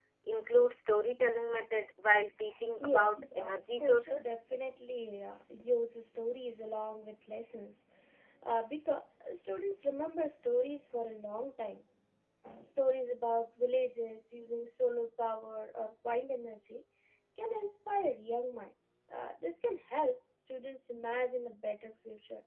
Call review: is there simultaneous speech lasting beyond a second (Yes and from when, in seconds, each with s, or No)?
Yes, from 2.8 s